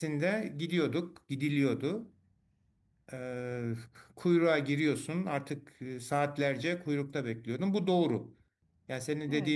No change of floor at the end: Yes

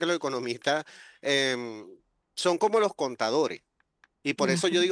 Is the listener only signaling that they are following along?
Yes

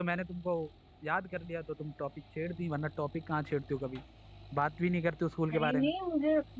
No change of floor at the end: No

